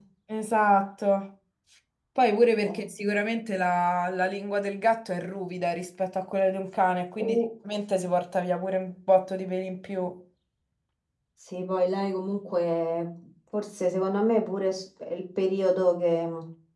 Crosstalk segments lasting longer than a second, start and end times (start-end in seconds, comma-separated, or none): none